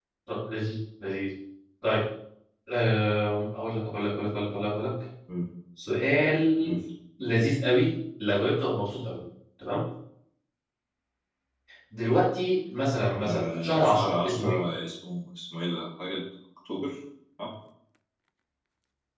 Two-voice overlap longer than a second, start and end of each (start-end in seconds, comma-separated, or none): 13.2-14.6